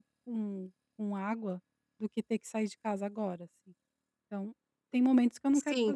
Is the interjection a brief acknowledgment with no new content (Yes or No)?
No